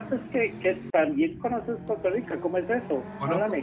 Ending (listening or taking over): taking over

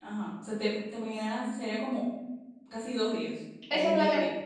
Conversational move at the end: taking over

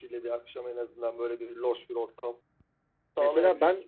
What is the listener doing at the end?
taking over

